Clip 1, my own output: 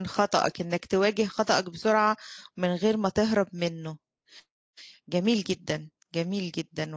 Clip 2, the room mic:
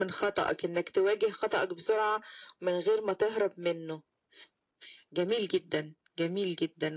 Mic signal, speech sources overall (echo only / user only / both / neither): echo only